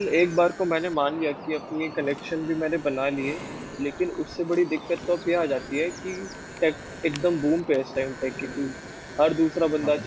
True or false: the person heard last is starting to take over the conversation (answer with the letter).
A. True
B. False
B